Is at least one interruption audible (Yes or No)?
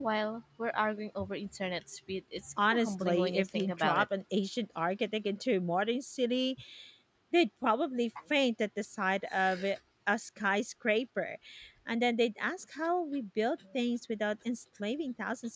Yes